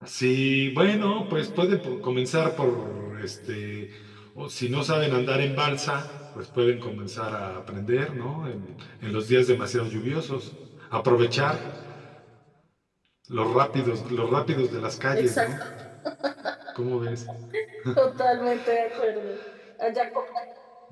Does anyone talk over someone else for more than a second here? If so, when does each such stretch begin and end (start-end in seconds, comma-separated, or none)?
none